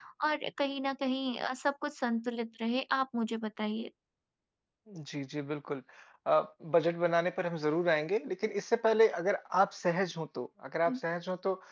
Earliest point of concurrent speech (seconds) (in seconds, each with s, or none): none